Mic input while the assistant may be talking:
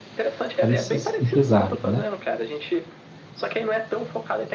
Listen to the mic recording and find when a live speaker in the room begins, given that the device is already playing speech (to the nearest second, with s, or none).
1 s